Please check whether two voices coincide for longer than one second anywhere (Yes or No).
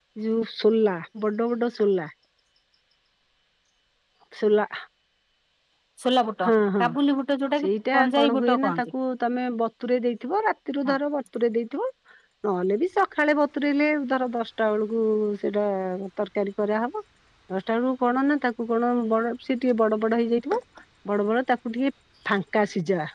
Yes